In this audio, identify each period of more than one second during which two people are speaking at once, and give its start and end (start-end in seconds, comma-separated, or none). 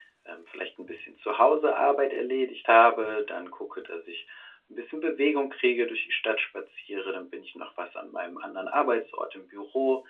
none